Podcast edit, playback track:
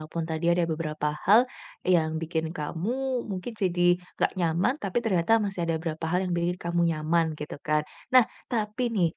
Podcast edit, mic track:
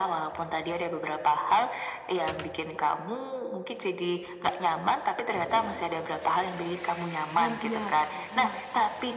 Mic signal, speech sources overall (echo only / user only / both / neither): both